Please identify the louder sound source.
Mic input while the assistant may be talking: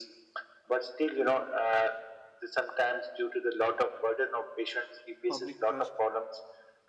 echo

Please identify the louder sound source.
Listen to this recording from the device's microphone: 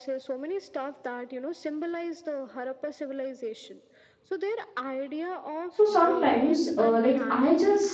user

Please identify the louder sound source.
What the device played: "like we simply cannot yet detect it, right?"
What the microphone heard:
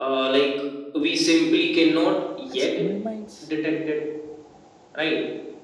echo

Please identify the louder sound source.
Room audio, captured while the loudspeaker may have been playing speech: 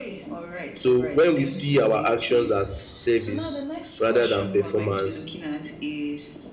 user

